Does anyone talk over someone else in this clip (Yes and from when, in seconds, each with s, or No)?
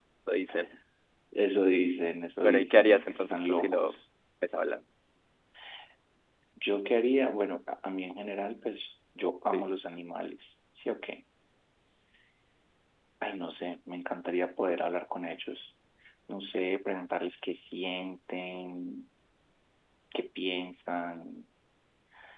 Yes, from 2.4 s